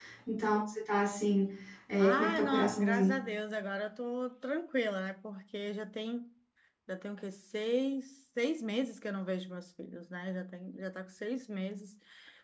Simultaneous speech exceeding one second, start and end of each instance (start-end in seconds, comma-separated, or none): 2.0-3.2